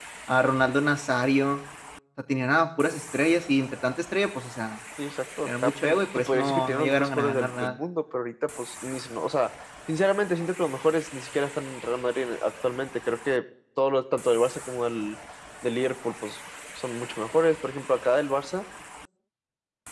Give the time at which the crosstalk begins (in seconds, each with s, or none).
5.5 s